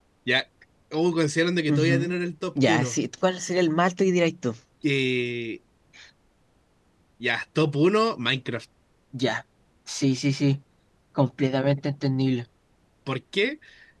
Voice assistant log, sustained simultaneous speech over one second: none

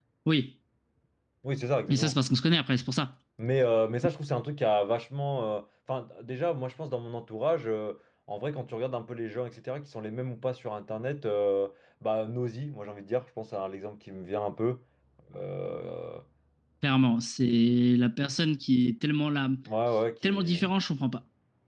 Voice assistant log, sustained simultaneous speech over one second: none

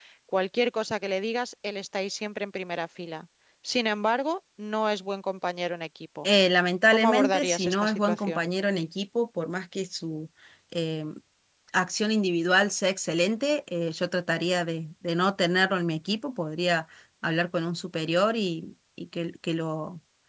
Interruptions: present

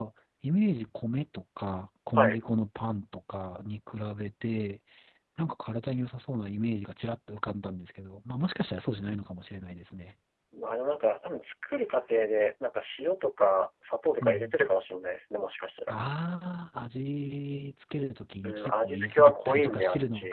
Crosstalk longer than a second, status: present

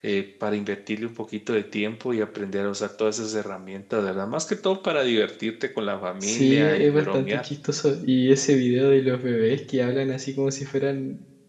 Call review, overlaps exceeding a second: present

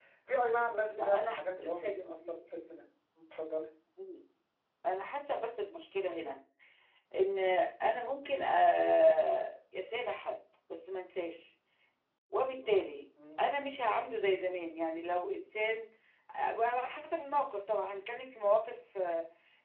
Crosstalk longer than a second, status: present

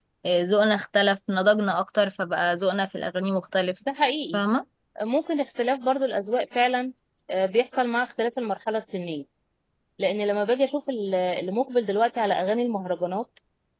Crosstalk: none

